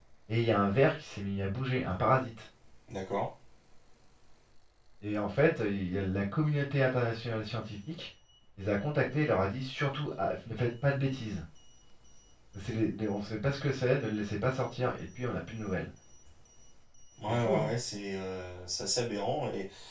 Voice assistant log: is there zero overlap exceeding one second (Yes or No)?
Yes